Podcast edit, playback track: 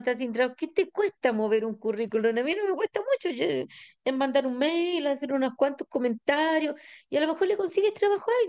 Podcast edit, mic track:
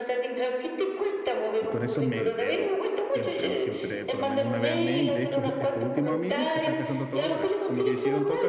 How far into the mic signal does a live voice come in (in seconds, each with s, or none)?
1.6 s